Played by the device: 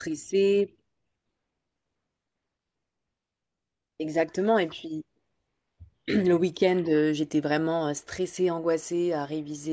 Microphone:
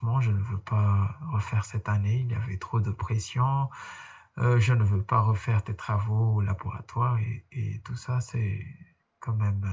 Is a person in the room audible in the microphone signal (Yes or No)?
Yes